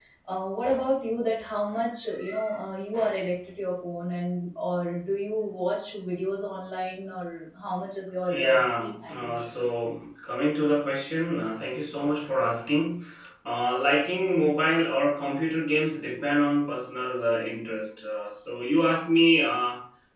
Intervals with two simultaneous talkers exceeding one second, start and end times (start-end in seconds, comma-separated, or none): 8.3-9.6